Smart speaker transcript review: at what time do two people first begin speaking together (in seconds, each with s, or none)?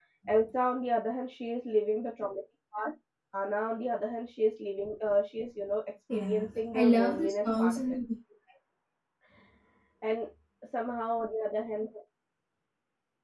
6.1 s